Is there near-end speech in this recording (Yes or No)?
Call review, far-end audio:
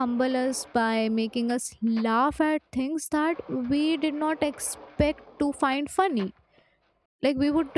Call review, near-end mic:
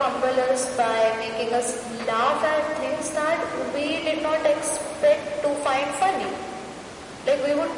No